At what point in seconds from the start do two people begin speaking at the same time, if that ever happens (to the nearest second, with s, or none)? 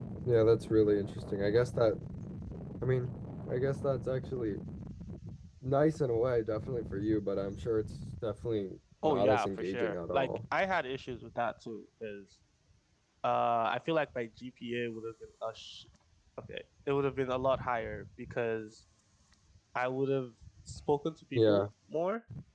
9 s